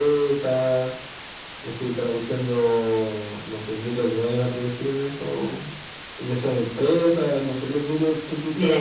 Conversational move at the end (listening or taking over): taking over